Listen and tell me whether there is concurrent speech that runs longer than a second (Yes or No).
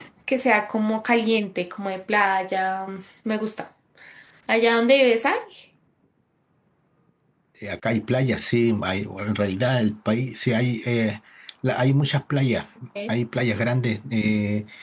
No